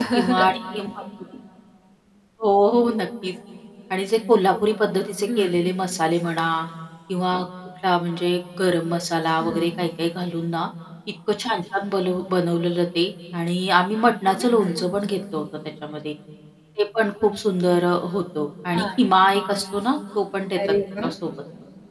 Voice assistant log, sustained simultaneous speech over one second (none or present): none